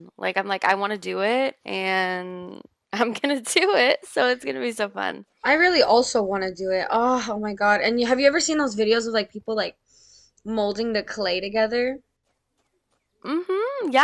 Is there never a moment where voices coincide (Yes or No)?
Yes